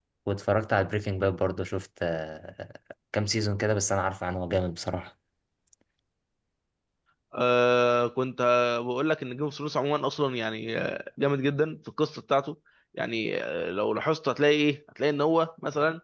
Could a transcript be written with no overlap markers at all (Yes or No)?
Yes